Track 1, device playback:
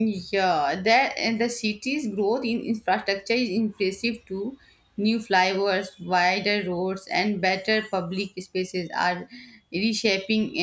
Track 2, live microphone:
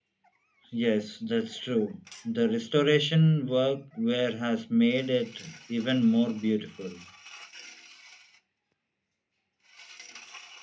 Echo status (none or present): none